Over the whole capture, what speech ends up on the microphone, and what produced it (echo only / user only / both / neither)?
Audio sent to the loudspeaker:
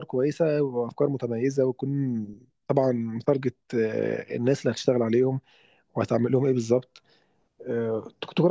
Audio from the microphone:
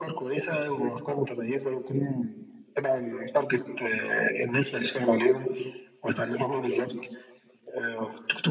echo only